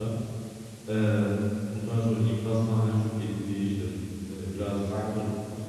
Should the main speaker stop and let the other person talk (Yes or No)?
No